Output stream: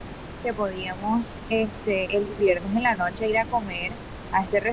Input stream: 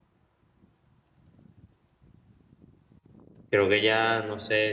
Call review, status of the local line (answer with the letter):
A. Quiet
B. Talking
B